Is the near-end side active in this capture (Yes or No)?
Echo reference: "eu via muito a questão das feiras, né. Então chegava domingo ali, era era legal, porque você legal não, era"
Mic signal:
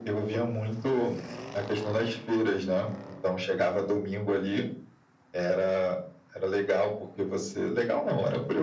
No